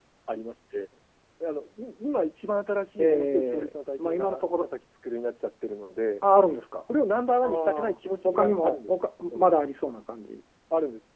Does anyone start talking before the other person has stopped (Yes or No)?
Yes